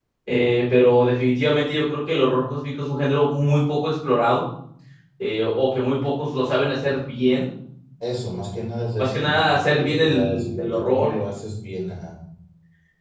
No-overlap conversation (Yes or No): No